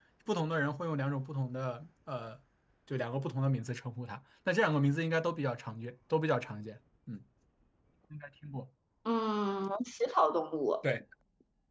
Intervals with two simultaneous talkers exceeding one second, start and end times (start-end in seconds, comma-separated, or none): none